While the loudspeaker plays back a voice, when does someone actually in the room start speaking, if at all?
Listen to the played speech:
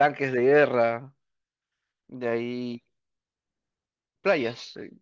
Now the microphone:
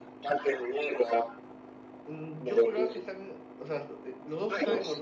2.1 s

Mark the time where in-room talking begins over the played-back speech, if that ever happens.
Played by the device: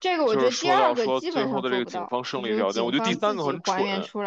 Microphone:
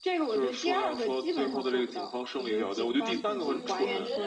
3.3 s

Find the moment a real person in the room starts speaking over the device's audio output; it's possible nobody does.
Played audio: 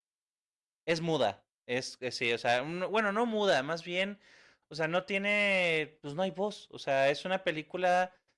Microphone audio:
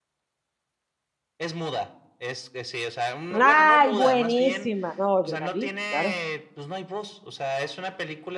3.3 s

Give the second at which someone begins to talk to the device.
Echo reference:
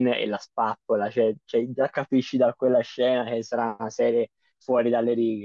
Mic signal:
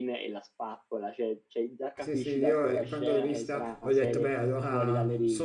2.0 s

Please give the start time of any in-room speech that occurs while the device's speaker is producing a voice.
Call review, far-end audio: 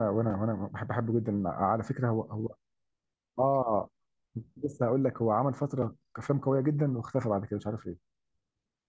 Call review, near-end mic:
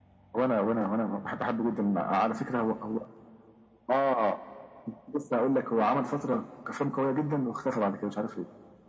none

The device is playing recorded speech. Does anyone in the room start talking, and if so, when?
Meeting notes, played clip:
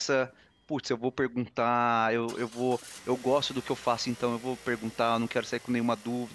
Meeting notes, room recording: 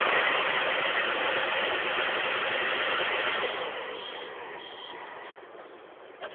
none

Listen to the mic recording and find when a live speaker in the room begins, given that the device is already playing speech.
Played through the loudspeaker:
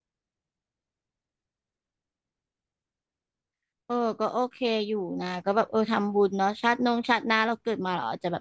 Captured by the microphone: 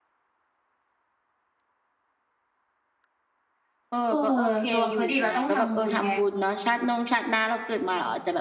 4.1 s

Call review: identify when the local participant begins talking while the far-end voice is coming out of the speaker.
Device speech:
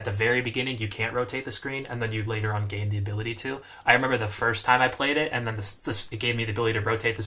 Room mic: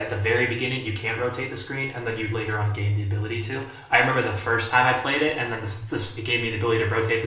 none

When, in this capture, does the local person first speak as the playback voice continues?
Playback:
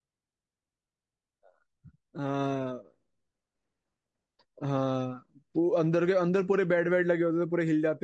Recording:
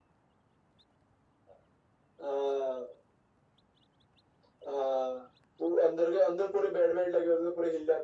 none

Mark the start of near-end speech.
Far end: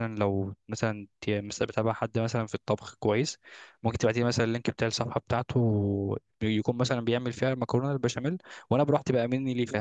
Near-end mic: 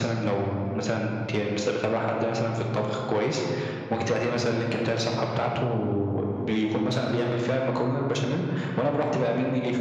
none

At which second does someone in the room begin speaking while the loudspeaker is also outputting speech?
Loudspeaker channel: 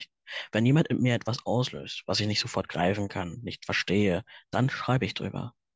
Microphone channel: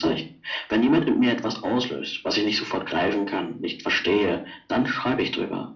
none

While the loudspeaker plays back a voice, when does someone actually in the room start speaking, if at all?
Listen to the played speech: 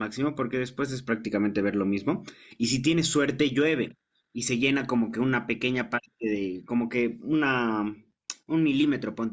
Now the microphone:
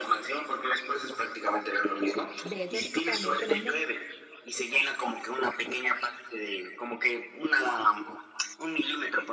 2.4 s

